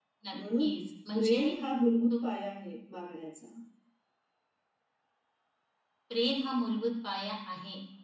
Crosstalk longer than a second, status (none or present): none